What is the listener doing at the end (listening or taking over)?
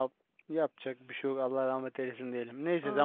listening